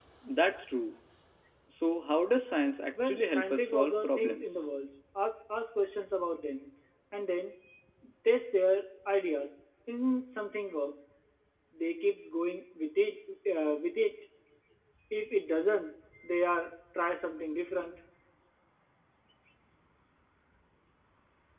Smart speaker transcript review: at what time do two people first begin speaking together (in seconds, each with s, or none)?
2.9 s